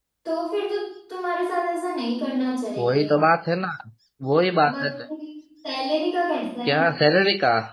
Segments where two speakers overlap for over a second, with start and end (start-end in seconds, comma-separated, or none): none